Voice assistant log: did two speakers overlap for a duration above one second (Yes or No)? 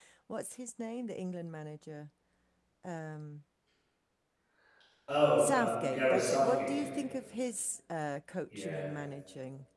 Yes